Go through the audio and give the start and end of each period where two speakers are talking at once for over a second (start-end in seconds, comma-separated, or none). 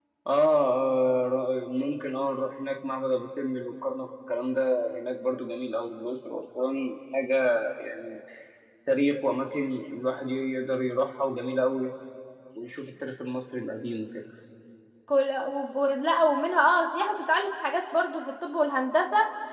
none